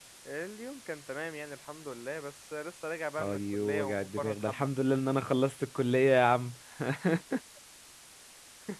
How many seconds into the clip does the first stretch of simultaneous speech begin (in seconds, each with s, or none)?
3.2 s